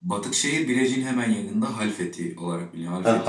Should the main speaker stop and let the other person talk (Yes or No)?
Yes